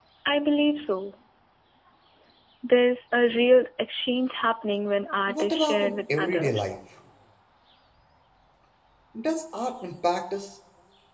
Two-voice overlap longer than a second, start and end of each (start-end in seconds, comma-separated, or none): 5.3-6.7